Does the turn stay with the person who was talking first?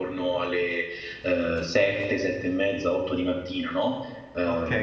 No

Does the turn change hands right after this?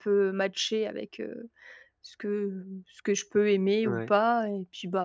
No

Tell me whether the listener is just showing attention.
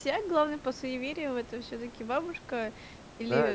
No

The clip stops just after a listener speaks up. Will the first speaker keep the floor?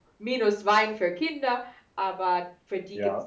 No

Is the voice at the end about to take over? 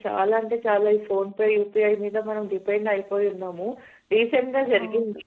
No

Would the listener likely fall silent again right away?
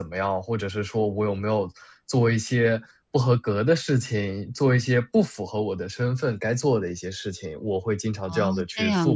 No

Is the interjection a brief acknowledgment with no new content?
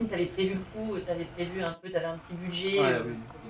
No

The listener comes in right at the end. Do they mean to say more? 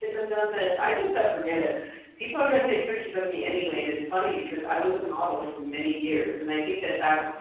No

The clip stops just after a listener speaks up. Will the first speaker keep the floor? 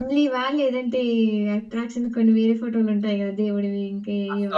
No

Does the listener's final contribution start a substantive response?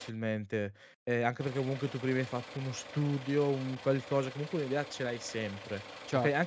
No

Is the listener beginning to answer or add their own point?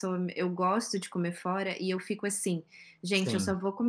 No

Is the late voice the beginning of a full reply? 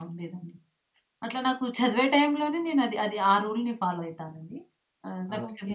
No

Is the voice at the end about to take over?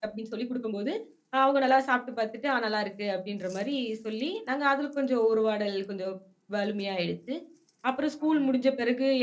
No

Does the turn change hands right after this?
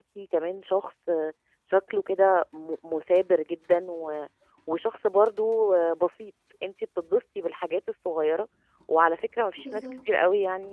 No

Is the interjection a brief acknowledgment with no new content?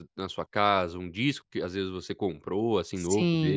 No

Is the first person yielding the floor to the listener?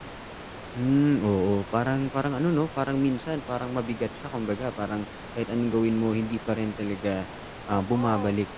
Yes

